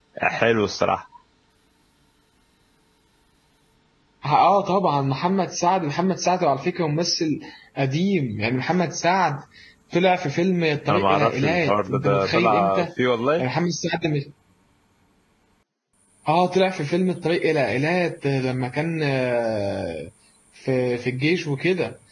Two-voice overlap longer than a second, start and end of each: 10.9-12.8

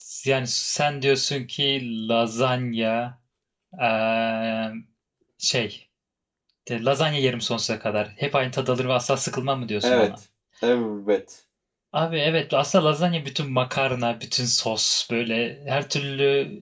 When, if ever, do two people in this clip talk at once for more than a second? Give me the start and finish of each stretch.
none

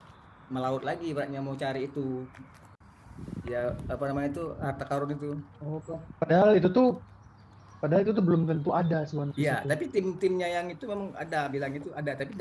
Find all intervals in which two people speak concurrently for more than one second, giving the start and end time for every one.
none

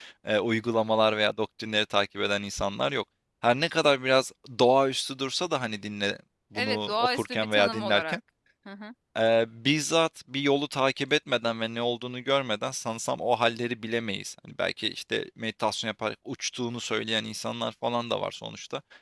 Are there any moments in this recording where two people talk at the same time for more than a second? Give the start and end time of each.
6.5-8.2

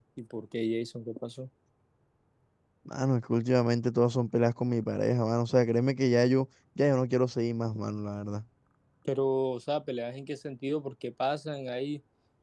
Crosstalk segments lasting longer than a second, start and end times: none

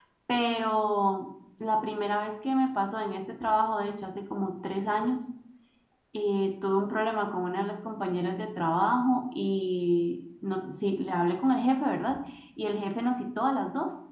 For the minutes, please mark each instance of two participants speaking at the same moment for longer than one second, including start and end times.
none

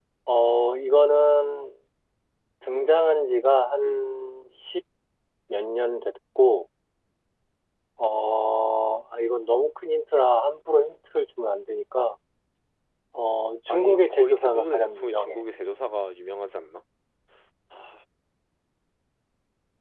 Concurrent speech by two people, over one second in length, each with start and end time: 13.7-15.4

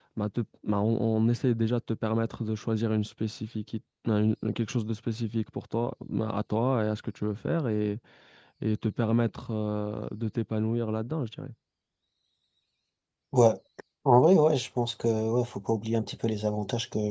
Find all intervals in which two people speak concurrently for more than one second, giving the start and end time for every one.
none

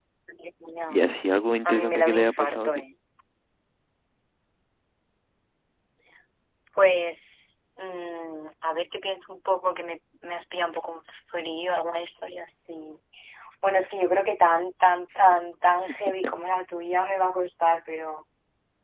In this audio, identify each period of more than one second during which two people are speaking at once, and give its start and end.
1.6-2.8

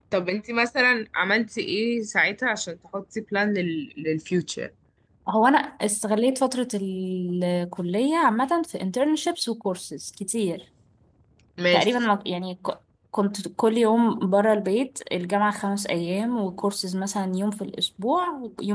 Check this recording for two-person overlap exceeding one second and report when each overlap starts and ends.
none

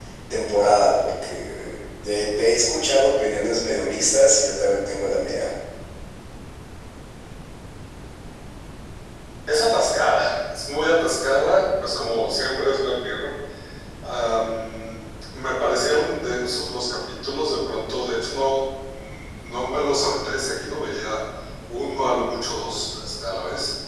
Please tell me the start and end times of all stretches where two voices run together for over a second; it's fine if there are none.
none

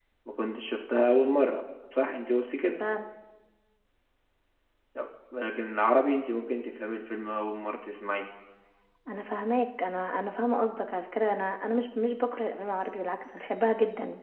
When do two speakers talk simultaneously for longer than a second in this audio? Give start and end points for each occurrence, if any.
none

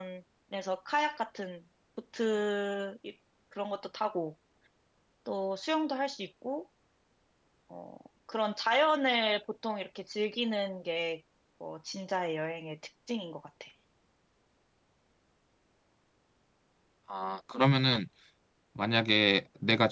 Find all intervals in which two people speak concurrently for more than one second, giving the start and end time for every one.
none

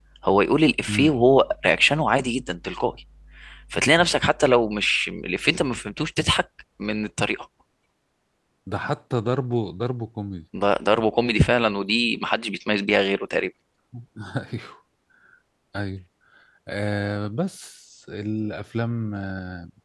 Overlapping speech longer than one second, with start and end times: none

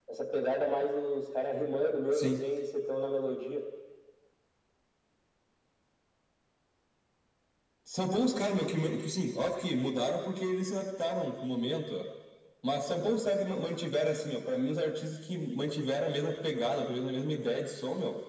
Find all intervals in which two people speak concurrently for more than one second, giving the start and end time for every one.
none

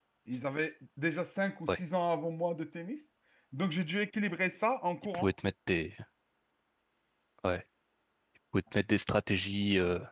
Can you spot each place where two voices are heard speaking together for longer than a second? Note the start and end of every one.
none

